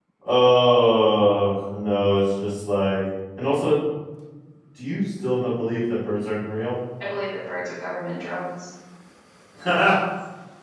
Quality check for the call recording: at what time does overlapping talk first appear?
none

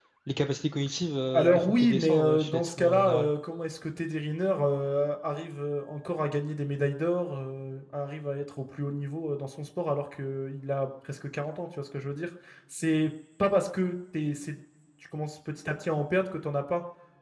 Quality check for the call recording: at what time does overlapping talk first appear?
1 s

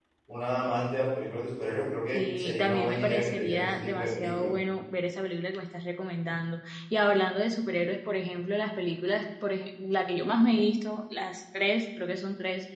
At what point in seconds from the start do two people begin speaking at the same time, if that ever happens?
2 s

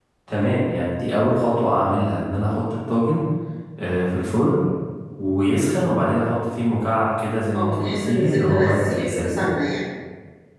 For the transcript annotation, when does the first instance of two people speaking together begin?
8 s

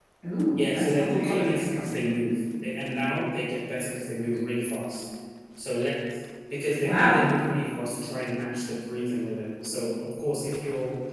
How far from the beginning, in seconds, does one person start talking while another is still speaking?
1 s

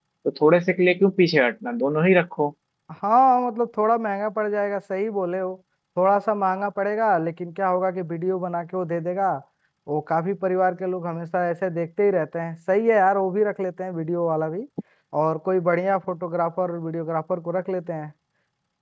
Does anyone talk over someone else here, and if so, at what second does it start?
none

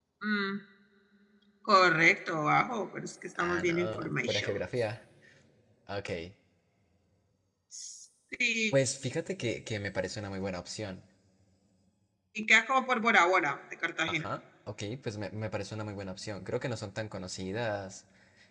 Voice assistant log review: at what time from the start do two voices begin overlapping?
3 s

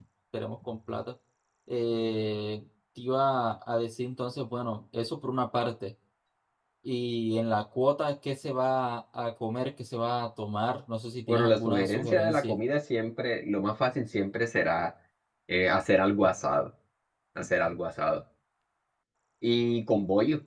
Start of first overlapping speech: 11 s

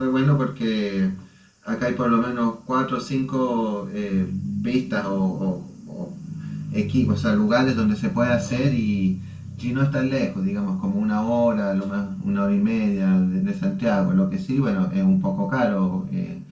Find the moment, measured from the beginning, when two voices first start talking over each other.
none

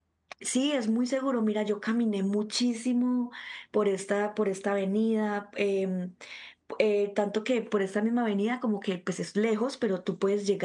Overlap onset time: none

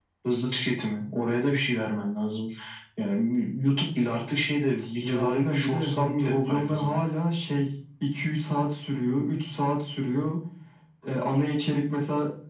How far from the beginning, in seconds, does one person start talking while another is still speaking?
5 s

